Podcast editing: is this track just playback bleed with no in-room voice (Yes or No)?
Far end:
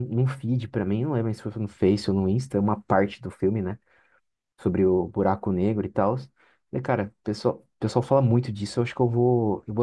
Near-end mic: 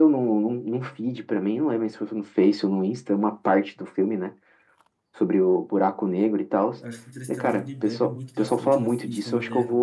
No